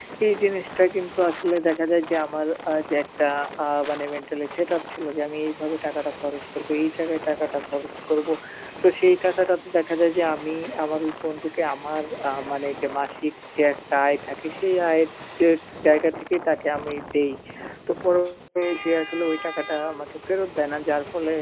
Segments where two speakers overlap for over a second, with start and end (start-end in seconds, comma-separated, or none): none